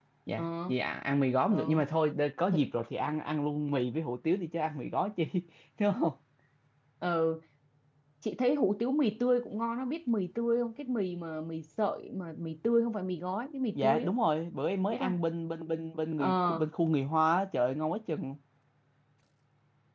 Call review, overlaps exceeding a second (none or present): none